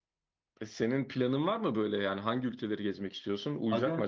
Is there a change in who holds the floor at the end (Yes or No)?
Yes